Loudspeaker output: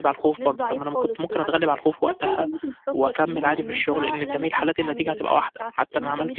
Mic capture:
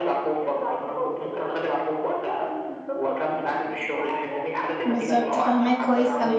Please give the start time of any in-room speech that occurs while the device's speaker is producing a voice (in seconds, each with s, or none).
4.8 s